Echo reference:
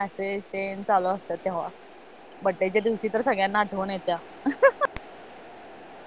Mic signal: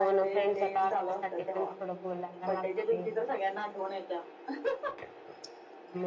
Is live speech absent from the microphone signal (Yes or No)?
No